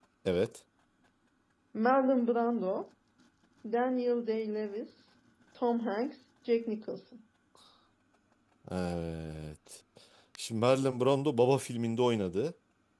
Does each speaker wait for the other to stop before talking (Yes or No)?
Yes